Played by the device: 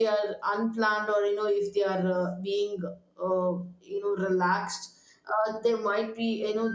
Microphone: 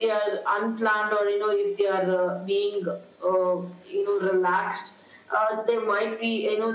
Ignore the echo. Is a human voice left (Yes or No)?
No